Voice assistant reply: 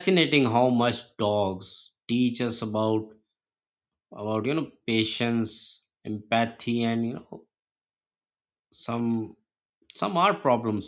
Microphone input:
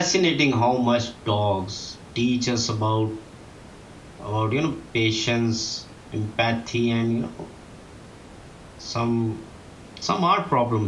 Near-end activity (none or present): none